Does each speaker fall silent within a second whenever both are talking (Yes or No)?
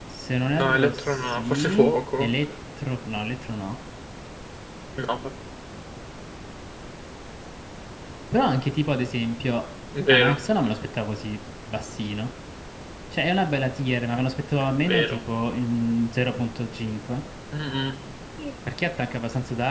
No